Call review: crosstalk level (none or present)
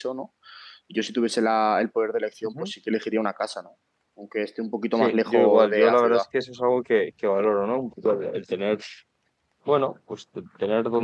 present